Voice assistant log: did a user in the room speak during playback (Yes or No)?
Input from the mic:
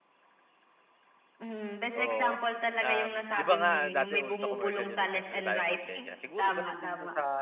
Yes